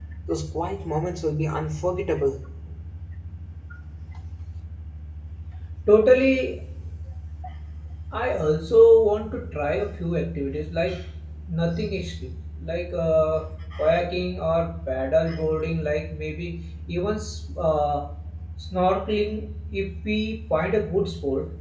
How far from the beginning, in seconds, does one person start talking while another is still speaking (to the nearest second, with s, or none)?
none